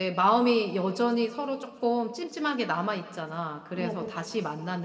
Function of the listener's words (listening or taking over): listening